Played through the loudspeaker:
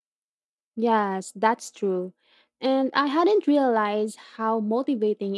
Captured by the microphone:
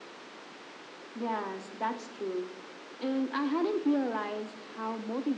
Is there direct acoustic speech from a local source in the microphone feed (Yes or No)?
No